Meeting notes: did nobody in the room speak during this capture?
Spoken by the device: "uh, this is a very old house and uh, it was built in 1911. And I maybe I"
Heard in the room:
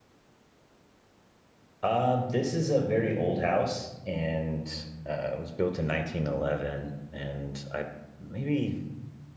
Yes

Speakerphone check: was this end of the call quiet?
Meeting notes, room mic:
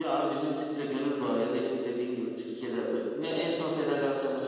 Yes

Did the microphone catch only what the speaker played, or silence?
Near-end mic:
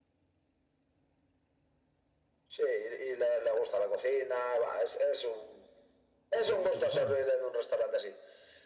No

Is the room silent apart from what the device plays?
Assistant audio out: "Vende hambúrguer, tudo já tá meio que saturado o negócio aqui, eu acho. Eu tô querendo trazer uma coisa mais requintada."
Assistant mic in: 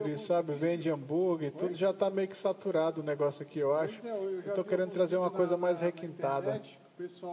No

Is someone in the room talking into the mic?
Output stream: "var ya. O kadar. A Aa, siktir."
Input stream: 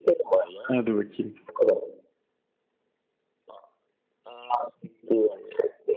Yes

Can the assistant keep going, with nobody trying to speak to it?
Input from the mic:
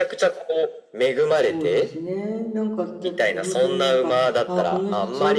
No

